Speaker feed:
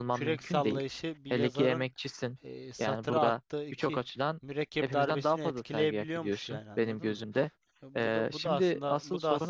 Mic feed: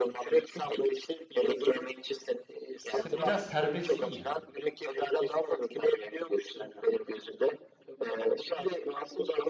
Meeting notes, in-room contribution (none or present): present